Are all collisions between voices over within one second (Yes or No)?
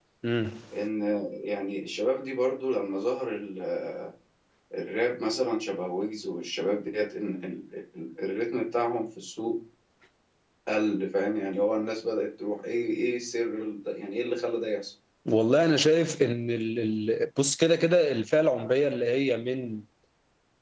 Yes